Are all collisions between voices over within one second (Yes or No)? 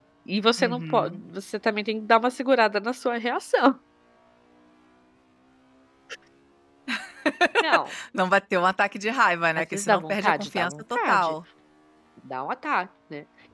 No